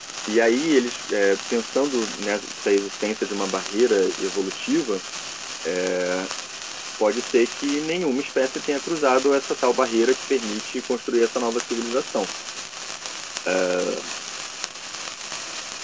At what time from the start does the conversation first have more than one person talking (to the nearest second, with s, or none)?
none